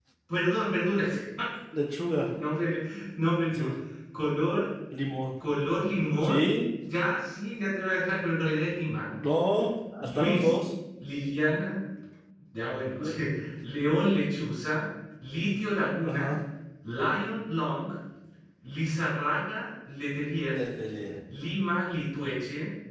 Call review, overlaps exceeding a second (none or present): none